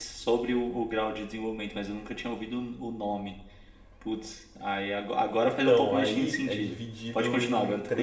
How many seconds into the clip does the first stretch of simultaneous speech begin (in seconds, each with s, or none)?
5.3 s